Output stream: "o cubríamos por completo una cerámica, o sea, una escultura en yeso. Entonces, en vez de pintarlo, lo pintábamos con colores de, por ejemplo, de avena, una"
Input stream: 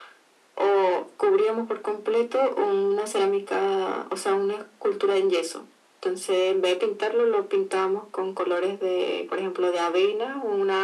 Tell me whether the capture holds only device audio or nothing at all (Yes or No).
Yes